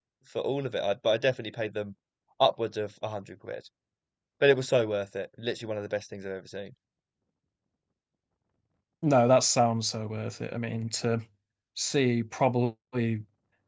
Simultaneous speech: No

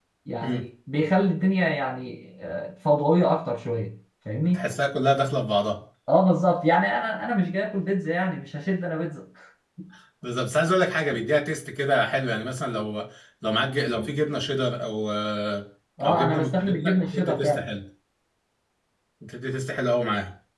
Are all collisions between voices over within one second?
No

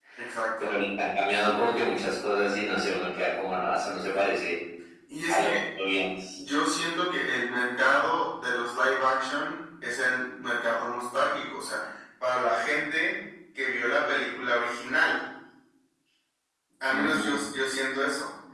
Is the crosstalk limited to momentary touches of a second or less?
Yes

